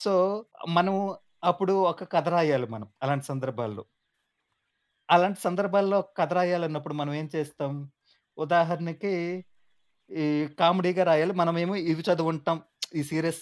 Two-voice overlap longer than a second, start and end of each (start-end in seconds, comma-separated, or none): none